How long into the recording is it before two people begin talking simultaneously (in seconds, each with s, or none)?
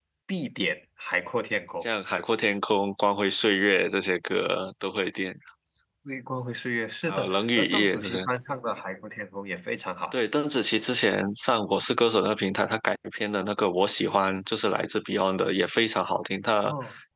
7.0 s